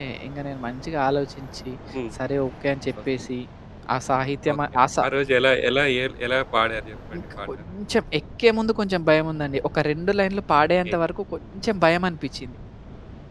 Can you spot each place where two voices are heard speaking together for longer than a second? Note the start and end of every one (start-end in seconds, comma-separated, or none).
none